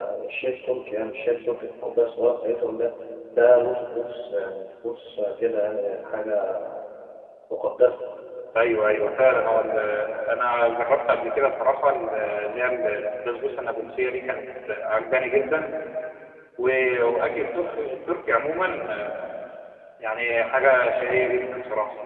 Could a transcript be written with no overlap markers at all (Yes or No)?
Yes